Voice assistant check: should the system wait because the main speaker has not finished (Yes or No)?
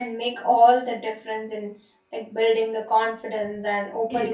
No